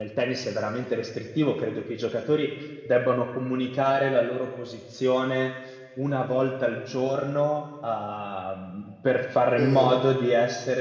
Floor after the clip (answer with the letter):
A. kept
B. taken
A